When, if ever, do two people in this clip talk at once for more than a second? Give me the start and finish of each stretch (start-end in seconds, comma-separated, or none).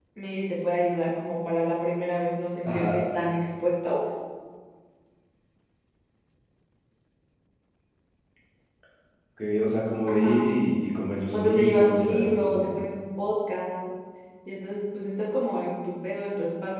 11.3-12.8